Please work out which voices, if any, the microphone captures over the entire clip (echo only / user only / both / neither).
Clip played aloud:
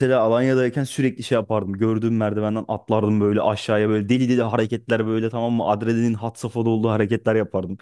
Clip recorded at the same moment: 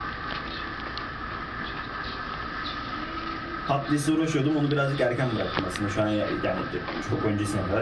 user only